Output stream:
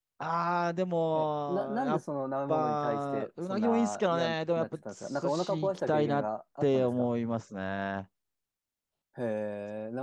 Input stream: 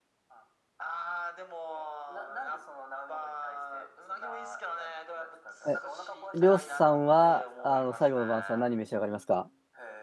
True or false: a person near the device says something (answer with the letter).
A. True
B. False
A